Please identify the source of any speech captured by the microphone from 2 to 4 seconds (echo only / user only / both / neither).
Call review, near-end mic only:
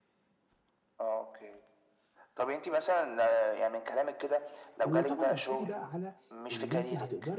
echo only